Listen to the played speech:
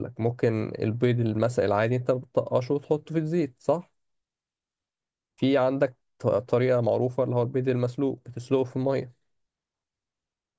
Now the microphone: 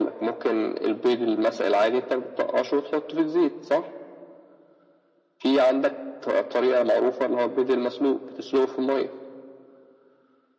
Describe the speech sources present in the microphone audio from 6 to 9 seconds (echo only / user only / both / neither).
echo only